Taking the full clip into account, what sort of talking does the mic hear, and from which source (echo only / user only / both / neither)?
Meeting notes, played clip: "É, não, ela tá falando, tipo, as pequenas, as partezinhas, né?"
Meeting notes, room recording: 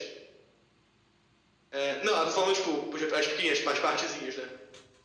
echo only